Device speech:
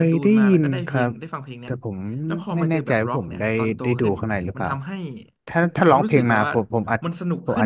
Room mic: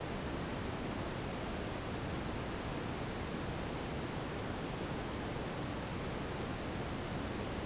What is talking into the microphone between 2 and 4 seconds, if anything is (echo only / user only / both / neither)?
neither